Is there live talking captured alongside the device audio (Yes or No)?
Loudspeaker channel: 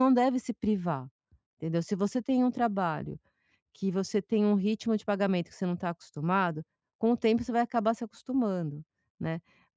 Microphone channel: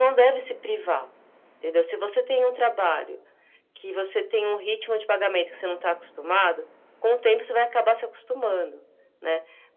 No